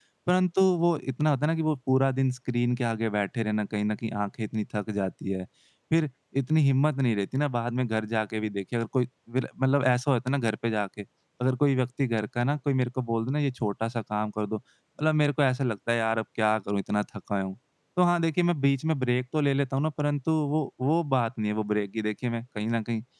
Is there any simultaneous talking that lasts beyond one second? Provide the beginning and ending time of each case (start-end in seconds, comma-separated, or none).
none